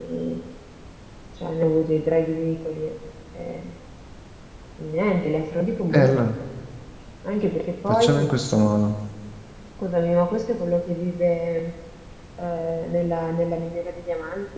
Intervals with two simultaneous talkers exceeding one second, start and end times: none

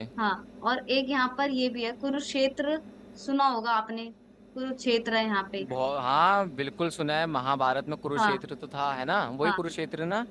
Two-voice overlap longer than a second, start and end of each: none

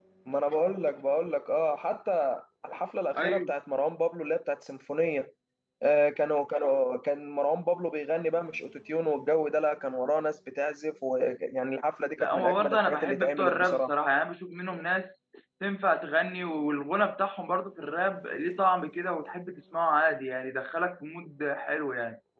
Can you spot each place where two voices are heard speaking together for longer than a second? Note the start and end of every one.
12.2-13.9

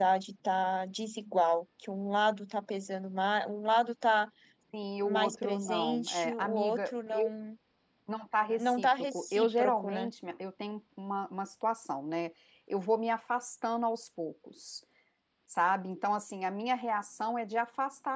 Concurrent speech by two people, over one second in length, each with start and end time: 5.0-7.3, 8.6-10.1

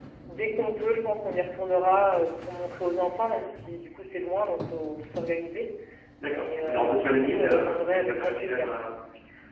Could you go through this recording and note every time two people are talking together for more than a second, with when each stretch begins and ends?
6.3-8.7

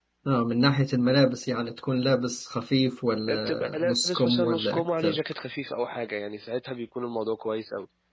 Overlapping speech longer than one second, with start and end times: 3.3-5.2

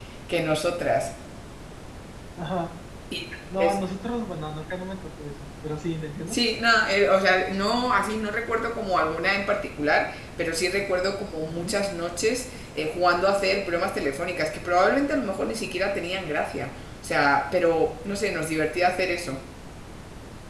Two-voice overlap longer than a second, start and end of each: none

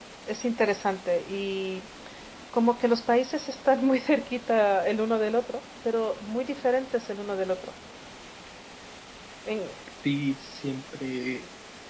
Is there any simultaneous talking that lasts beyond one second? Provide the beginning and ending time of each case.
none

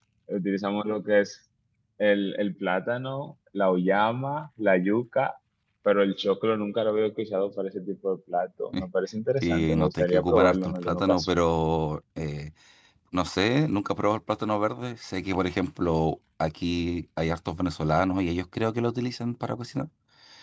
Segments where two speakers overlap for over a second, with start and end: 9.4-11.4

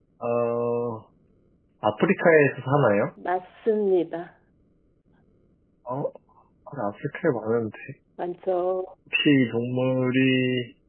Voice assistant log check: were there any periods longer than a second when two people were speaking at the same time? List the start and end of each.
none

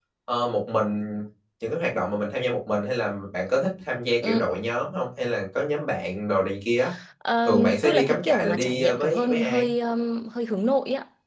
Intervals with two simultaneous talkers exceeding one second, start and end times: 7.4-9.7

